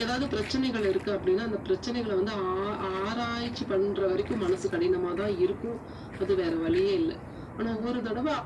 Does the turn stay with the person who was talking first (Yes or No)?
Yes